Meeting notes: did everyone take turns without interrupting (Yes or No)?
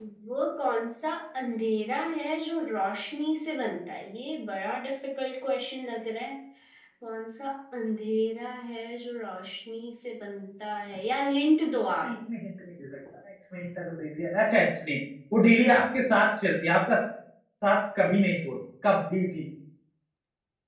Yes